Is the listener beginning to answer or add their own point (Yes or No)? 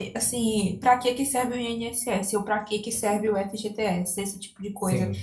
No